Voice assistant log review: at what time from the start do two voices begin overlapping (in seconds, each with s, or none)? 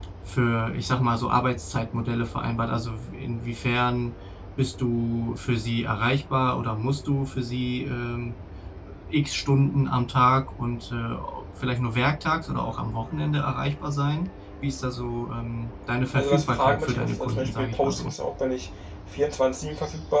16.2 s